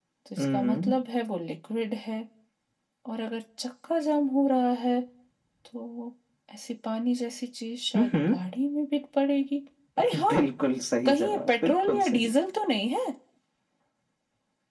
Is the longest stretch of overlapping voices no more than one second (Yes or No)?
No